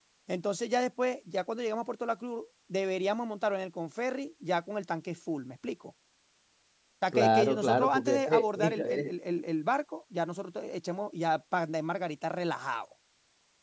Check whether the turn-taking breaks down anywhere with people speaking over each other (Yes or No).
Yes